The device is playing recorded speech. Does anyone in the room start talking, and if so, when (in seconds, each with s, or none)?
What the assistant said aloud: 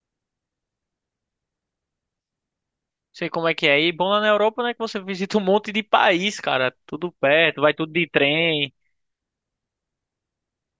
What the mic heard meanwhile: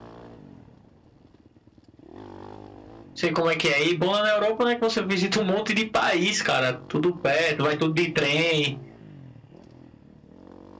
none